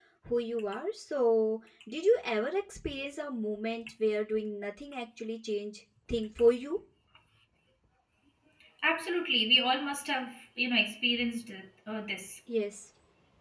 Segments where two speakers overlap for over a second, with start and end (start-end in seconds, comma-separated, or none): none